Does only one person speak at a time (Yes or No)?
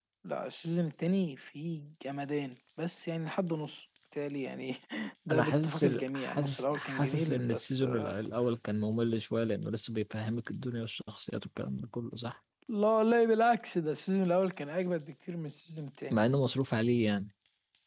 No